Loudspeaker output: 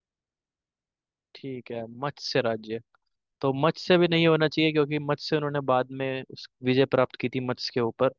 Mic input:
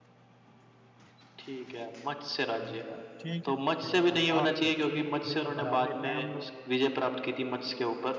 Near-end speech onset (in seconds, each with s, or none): 2.6 s